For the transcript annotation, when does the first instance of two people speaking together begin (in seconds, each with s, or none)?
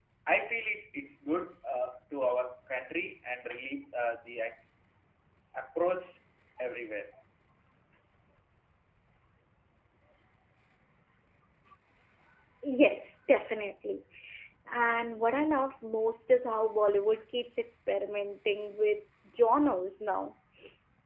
none